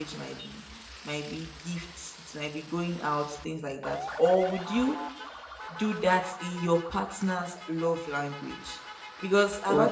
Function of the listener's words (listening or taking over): listening